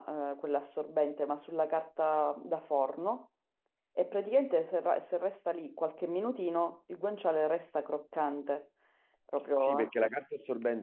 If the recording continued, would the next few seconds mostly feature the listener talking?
Yes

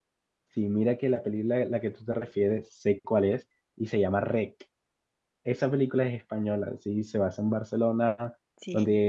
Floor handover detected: No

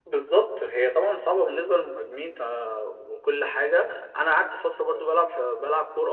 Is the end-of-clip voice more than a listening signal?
No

